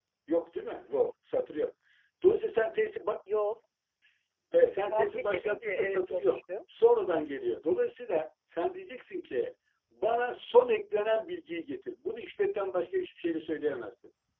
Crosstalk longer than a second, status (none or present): present